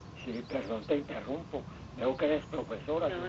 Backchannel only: Yes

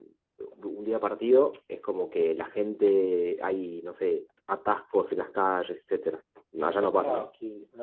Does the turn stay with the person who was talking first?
No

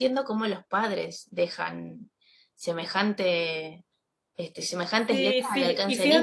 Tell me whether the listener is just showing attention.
No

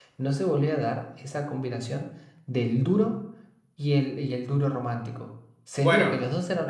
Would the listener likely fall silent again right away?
Yes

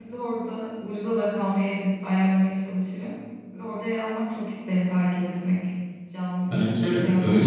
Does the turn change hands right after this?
Yes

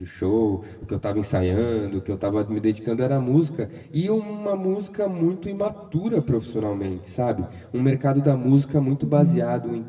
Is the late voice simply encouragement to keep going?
Yes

